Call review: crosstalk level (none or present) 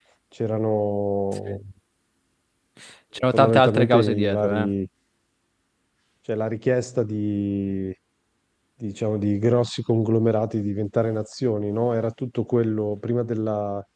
present